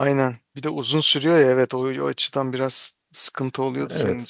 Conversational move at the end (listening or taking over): taking over